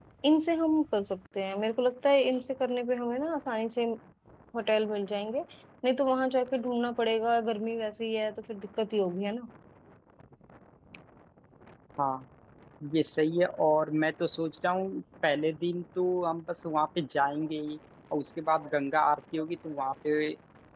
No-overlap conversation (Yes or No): Yes